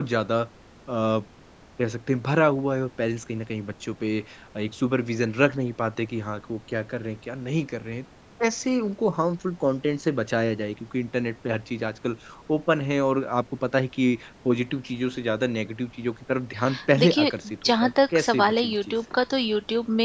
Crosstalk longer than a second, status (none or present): present